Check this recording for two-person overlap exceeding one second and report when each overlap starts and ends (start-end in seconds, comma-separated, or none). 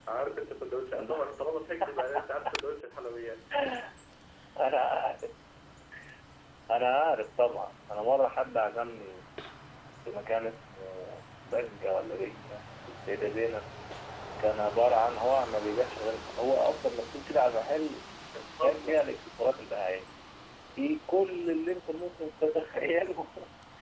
none